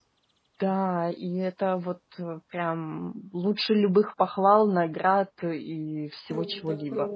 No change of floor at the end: No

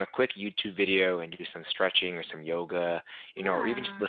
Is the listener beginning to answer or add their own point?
No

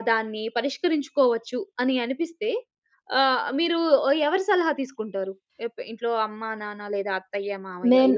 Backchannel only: No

